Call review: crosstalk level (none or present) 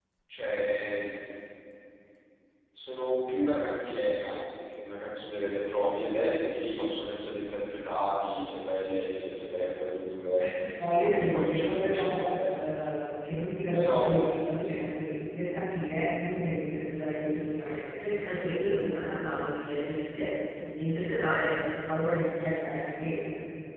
present